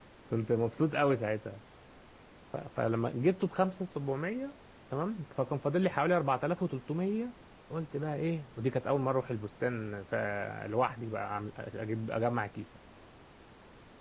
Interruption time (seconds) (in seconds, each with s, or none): none